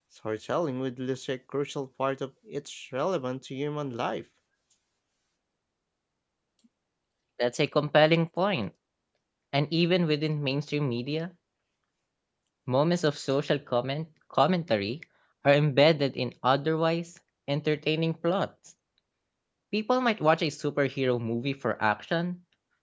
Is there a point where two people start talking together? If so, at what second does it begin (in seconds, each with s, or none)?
none